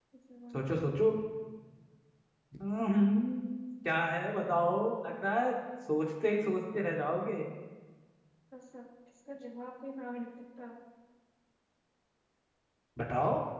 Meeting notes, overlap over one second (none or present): none